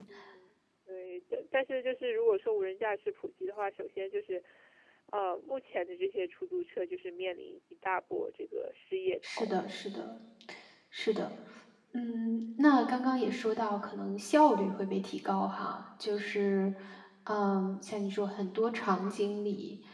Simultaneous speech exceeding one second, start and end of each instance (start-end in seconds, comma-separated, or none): none